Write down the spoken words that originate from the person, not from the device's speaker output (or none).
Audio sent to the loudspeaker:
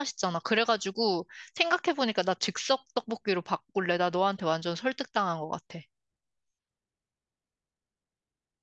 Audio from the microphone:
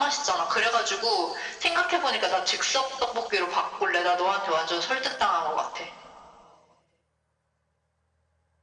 none